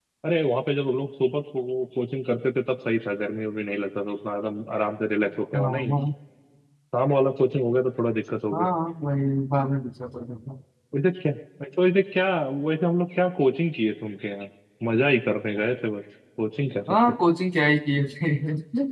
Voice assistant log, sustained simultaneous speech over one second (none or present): none